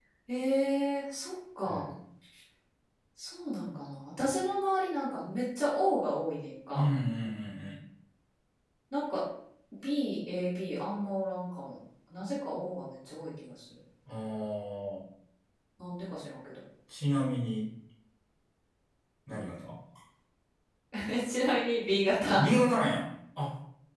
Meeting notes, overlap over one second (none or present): none